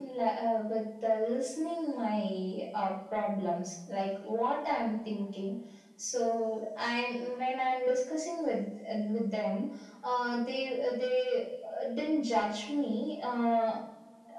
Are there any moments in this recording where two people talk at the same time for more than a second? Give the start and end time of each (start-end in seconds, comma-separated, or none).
none